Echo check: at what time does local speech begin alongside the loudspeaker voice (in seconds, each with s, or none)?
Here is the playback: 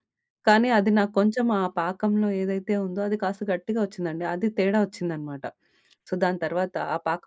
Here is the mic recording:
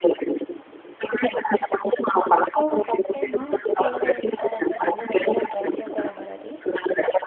2.5 s